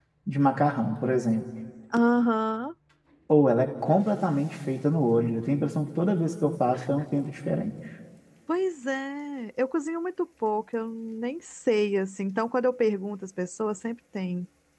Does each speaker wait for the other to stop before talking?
Yes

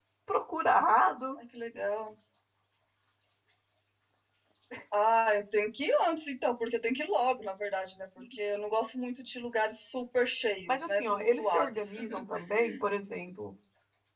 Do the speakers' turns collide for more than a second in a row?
Yes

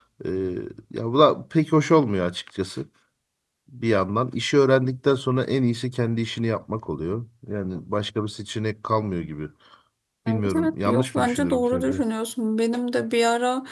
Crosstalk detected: Yes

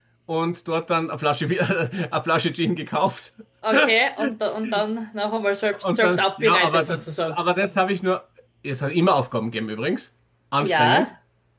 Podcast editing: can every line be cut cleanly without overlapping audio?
No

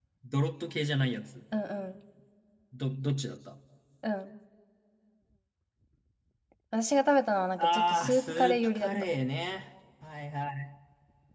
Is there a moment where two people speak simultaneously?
Yes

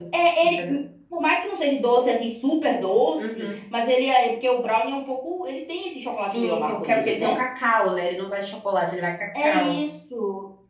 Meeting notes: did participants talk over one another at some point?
Yes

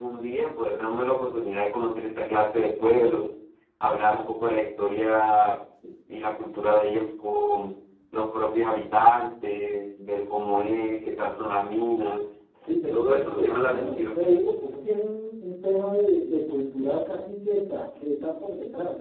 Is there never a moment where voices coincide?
No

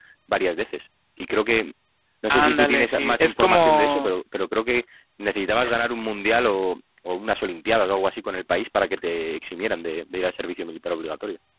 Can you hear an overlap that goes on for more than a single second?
Yes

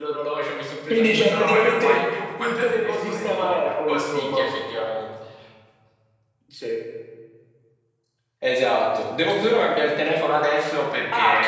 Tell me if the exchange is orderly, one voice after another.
No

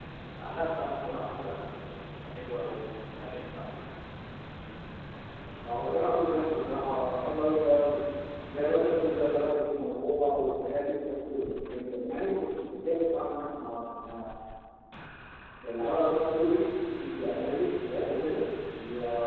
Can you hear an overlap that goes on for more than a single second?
No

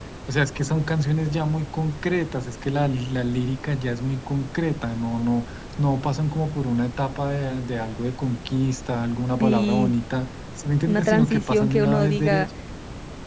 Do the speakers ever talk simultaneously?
Yes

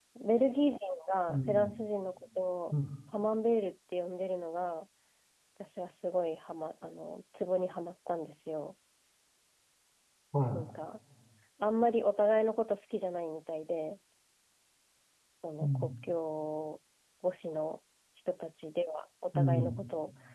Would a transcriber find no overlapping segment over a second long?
Yes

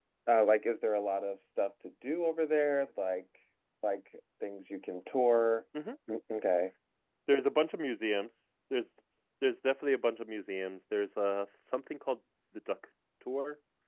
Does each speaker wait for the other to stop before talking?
Yes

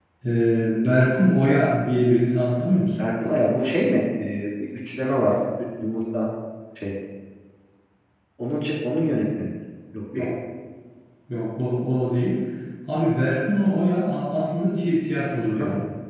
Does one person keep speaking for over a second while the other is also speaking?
No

